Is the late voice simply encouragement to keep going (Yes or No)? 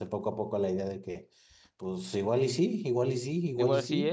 No